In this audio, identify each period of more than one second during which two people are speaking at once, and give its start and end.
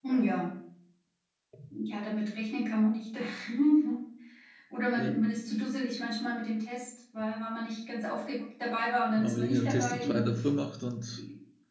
9.2-10.4

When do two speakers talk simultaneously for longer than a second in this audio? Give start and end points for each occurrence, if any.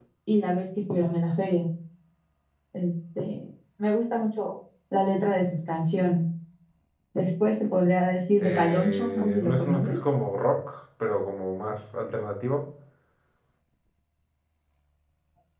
8.4-10.0

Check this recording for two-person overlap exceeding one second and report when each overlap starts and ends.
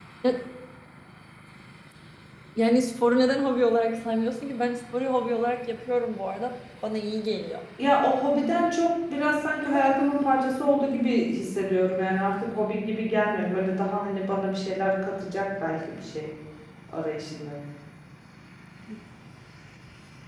none

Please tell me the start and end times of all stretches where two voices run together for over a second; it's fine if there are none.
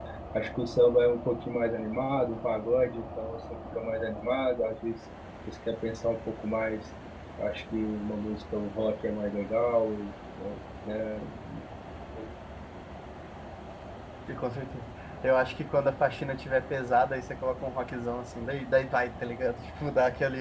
none

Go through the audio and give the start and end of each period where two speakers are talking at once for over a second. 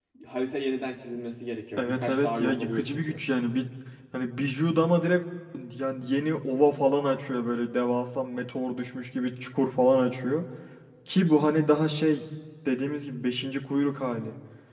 1.8-3.2

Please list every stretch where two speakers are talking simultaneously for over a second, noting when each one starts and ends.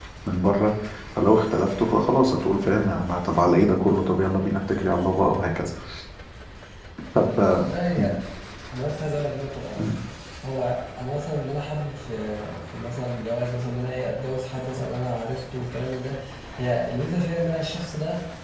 none

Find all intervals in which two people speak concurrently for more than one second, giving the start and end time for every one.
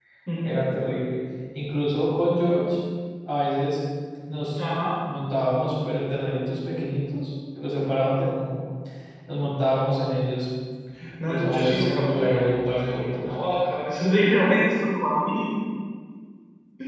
11.3-13.3

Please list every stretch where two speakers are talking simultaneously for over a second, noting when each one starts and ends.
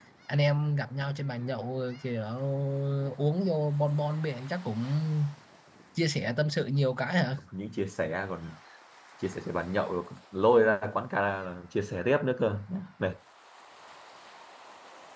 none

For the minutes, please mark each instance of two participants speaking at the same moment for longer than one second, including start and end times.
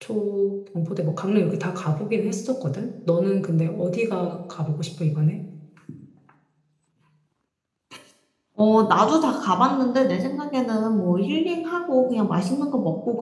none

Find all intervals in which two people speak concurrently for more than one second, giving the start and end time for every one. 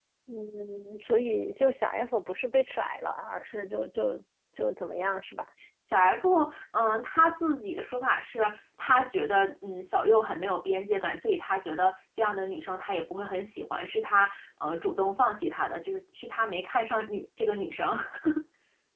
none

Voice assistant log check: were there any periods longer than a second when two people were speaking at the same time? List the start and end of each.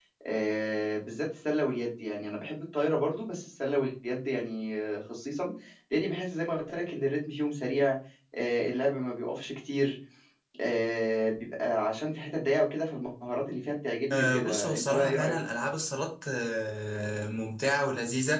14.1-15.3

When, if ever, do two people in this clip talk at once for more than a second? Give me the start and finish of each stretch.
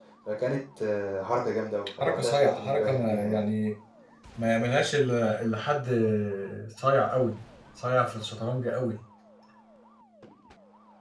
2.0-3.4

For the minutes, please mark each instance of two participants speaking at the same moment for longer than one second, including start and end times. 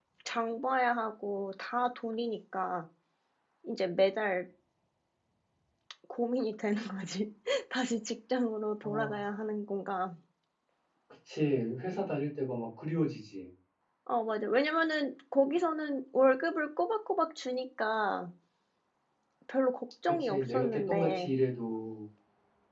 20.0-21.3

